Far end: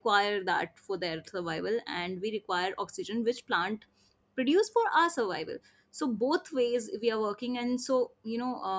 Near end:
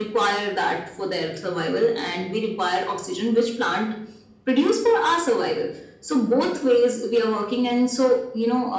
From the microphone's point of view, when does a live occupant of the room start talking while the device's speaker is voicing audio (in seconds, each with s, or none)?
none